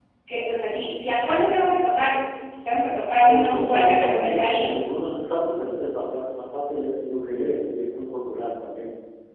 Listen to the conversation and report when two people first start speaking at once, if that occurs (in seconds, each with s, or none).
3.3 s